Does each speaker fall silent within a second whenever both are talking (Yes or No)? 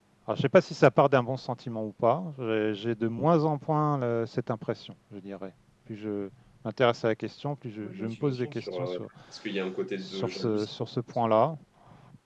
No